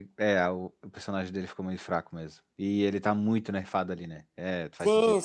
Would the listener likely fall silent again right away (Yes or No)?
No